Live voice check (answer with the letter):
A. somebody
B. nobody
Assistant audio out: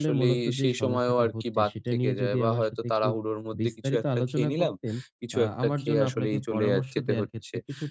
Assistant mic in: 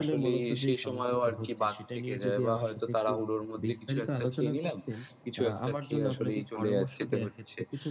B